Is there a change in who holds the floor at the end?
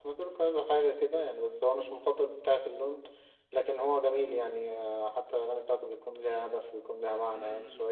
Yes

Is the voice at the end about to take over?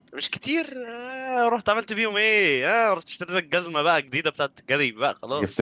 Yes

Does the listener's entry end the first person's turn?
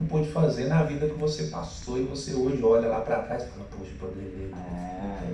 Yes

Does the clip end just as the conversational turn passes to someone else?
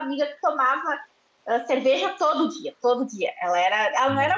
No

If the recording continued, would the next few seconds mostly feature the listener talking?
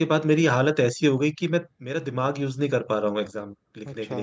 No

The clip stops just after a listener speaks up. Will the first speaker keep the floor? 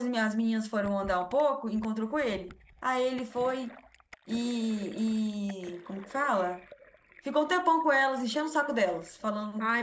No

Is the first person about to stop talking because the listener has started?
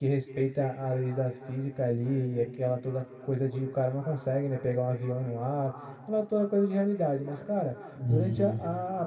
No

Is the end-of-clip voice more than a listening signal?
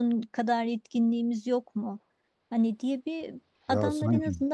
No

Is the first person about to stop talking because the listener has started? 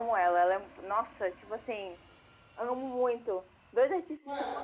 No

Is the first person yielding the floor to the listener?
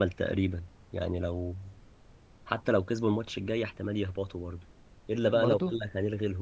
No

